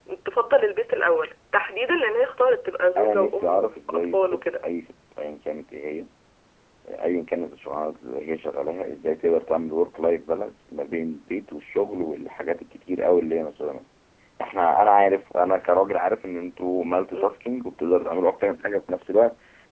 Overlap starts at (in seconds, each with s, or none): 3.0 s